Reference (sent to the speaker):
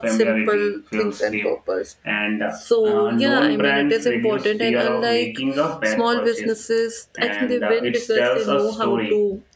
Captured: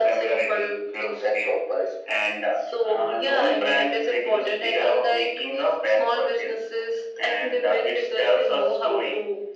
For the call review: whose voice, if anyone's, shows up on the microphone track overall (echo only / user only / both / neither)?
echo only